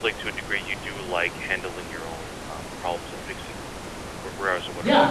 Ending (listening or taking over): taking over